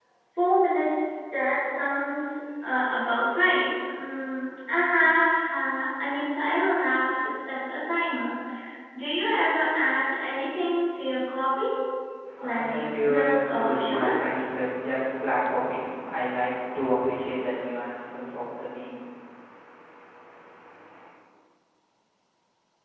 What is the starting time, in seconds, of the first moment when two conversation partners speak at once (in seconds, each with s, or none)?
12.4 s